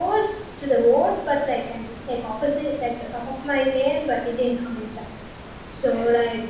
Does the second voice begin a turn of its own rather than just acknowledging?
No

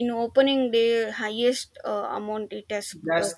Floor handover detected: Yes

